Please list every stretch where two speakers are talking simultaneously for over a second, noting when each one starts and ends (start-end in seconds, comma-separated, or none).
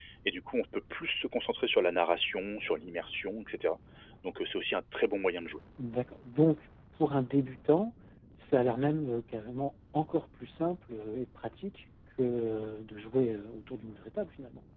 none